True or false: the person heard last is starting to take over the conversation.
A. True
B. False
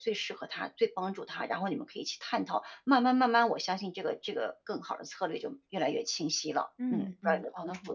A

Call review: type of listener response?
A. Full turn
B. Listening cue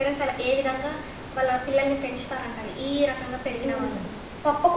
A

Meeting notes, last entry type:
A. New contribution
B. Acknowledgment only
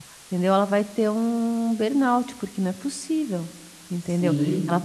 B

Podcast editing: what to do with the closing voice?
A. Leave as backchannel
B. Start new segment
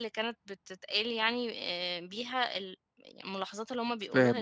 B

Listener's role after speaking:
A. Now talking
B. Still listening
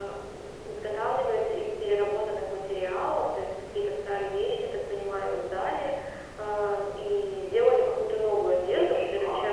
B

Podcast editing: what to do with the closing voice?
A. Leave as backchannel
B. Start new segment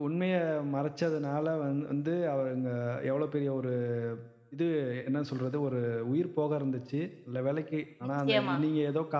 A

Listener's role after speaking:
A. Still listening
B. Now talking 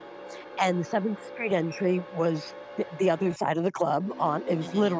A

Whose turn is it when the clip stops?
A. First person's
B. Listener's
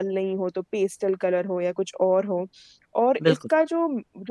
A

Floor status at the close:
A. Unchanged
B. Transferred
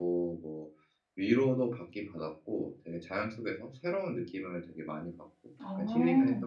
B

